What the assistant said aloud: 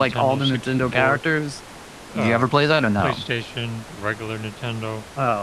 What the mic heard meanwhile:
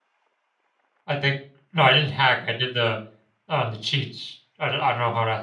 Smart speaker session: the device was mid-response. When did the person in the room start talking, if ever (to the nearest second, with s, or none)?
1 s